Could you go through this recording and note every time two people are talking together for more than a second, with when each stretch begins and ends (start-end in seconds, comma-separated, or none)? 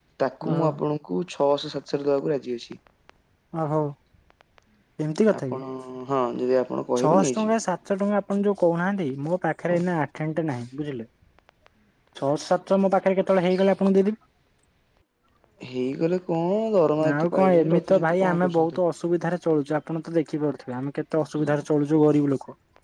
17.1-18.8